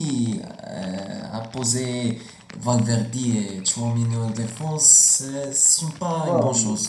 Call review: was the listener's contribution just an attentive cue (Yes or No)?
No